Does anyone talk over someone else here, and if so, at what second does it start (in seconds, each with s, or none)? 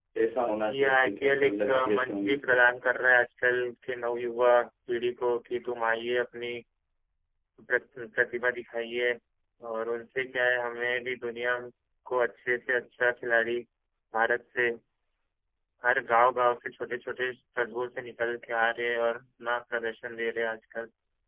0.7 s